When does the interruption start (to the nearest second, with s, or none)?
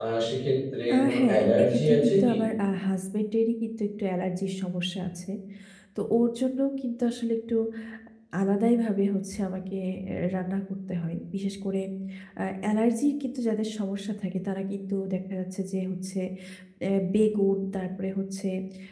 1 s